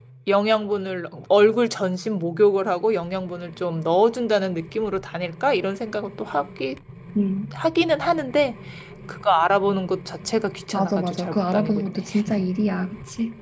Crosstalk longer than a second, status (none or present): present